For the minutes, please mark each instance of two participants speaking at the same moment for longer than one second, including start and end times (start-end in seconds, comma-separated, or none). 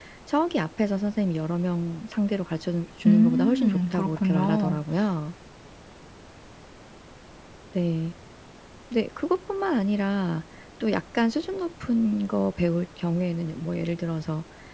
3.1-4.8